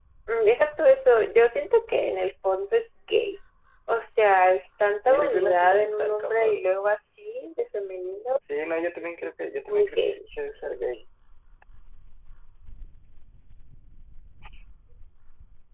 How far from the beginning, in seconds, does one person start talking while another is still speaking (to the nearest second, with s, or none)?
5 s